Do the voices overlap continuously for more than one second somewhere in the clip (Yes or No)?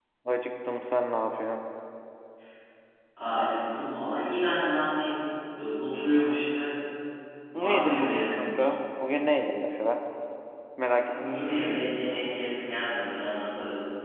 Yes